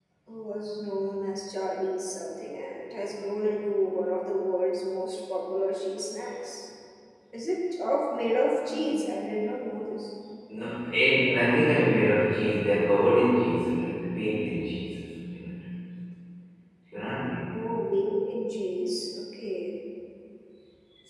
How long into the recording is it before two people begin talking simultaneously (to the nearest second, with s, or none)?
none